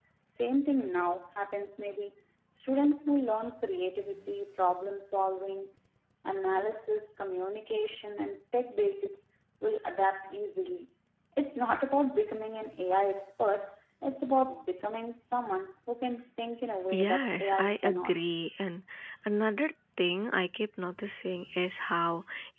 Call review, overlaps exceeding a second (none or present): present